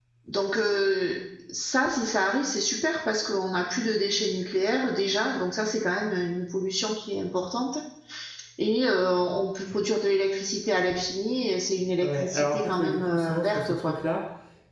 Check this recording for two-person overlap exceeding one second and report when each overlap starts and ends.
12.0-13.9

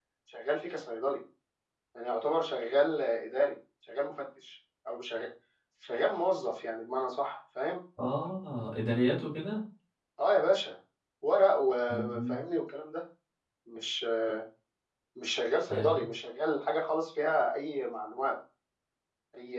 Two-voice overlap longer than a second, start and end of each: none

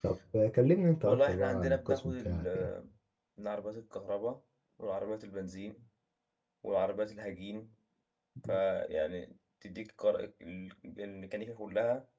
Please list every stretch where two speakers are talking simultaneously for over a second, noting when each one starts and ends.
1.0-2.7

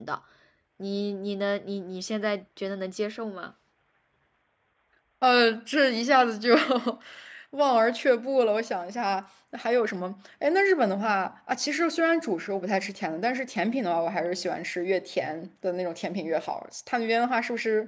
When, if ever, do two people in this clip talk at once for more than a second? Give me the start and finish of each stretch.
none

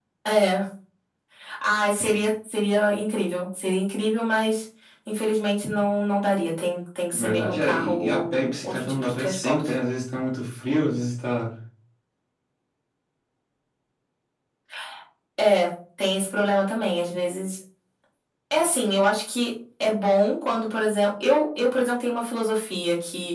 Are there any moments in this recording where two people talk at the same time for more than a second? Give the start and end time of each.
7.1-9.7

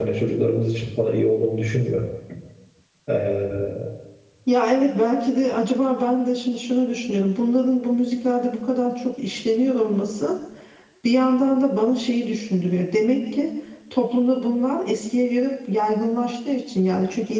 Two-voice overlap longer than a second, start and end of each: none

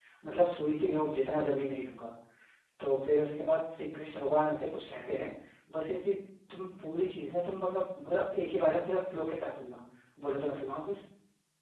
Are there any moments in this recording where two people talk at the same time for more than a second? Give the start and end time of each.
none

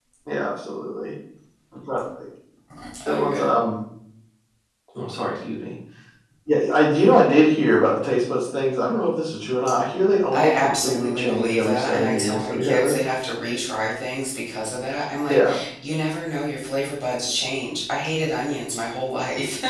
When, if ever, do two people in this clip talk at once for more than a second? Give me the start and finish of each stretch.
10.3-13.0

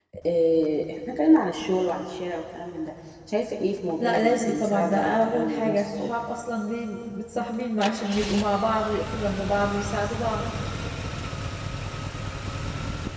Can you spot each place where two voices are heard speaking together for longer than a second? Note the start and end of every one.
4.0-6.1

